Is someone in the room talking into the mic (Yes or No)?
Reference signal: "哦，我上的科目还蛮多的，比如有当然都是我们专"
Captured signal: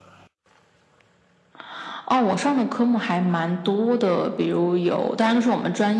No